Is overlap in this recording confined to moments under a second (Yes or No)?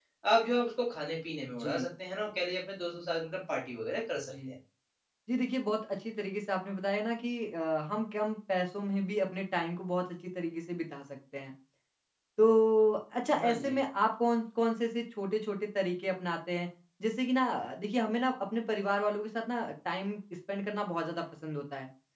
Yes